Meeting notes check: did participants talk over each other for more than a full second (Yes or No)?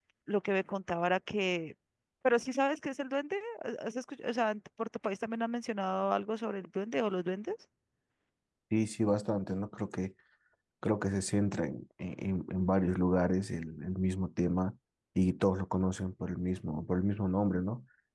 No